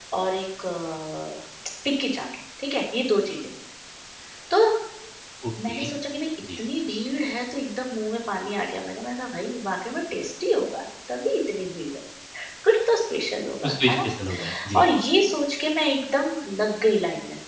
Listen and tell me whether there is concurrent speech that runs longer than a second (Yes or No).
No